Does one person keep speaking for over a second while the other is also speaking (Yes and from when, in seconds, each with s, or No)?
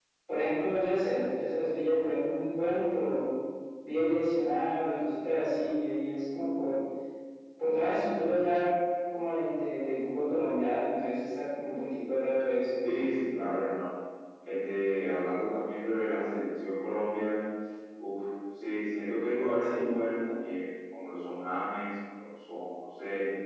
No